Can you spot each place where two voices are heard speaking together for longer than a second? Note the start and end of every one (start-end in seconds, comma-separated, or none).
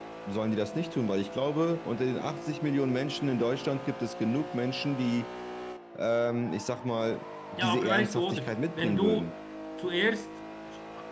7.6-9.3